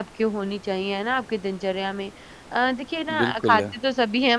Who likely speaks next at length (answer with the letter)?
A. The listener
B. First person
B